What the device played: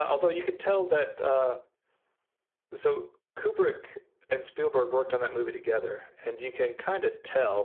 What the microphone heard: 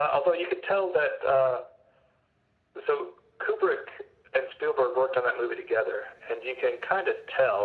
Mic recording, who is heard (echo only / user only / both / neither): echo only